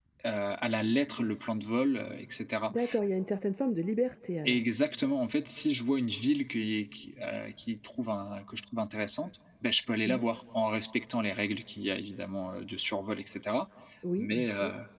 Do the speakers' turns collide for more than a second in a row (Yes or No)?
No